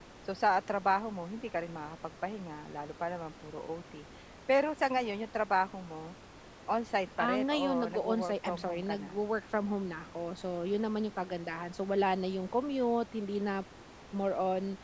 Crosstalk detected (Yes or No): Yes